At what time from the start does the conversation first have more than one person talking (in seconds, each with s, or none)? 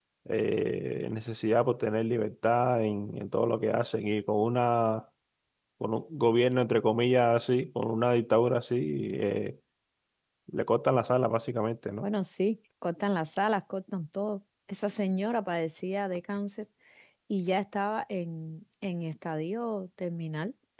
none